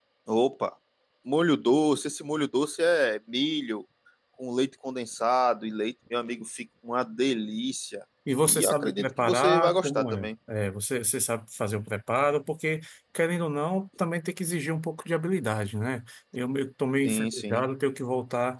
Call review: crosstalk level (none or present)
present